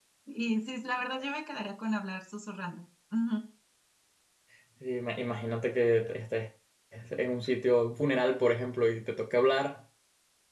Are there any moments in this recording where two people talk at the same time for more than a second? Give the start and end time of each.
none

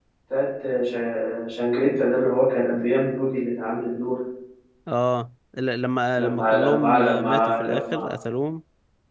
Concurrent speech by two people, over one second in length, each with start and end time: 6.2-8.1

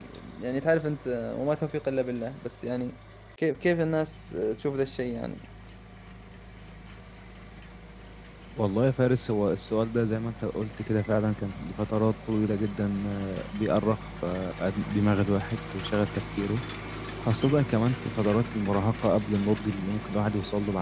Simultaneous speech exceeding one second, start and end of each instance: none

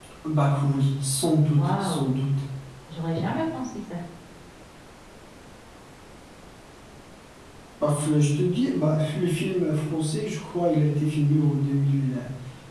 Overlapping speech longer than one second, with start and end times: none

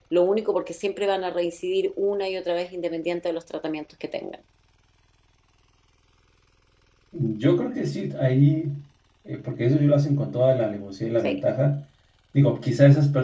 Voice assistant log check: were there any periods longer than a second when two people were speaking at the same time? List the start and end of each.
none

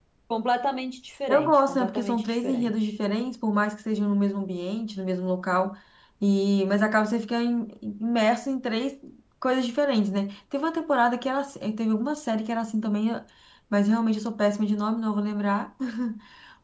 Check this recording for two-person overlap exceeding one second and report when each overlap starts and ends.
1.3-2.9

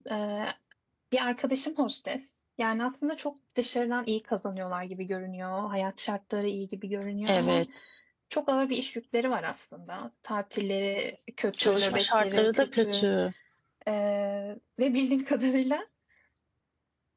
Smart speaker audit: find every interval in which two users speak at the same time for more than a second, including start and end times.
11.5-13.1

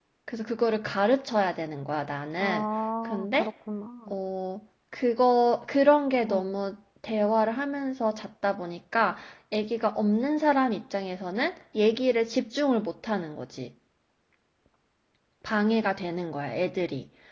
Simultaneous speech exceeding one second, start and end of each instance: none

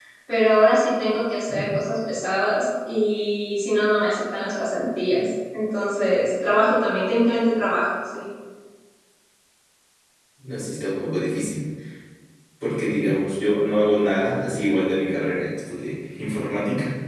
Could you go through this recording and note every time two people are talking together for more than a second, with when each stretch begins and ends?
none

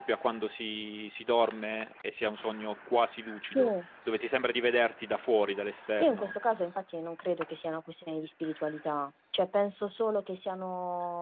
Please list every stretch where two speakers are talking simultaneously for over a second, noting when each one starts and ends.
none

